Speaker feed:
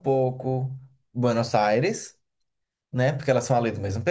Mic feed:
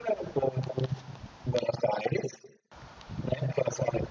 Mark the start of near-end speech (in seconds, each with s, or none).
none